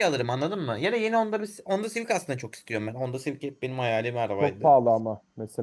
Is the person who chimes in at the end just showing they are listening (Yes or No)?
No